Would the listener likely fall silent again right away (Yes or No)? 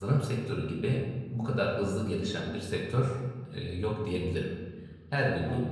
Yes